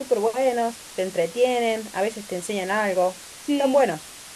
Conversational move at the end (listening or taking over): taking over